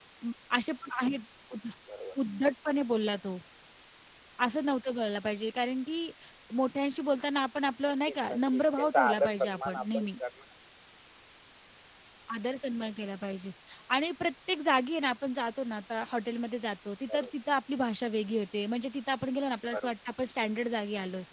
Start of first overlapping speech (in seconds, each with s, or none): 8.1 s